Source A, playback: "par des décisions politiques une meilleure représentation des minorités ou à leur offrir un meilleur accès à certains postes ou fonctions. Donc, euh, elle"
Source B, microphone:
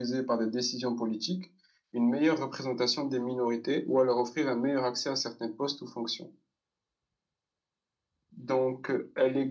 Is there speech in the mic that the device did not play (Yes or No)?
No